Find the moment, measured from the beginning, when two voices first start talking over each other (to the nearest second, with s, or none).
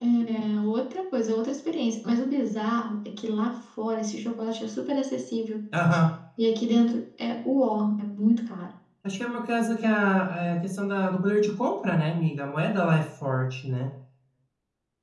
none